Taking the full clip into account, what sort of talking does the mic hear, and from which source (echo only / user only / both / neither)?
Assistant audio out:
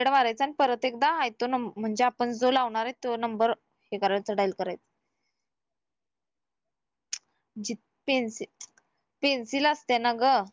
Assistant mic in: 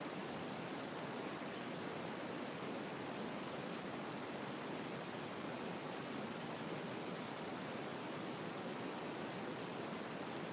neither